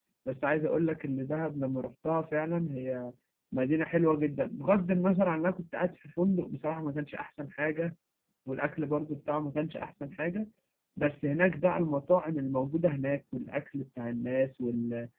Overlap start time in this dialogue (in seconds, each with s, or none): none